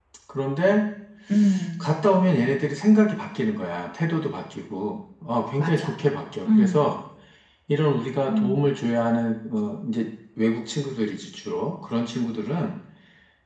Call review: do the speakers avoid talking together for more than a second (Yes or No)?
Yes